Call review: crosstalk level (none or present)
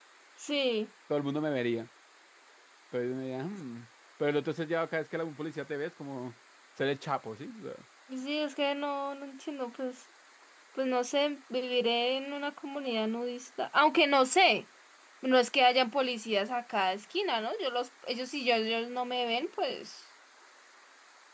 none